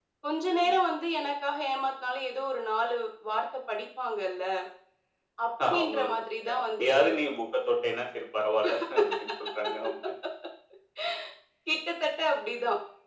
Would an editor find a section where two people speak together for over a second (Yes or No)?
Yes